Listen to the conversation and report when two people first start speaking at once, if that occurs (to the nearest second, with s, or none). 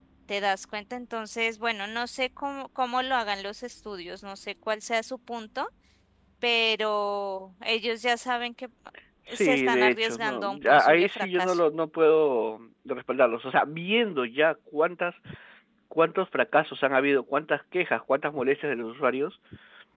9 s